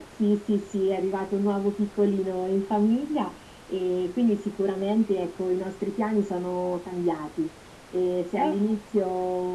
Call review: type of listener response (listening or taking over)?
listening